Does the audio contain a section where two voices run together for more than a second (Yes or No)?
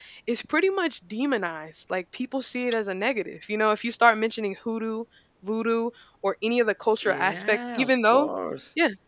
Yes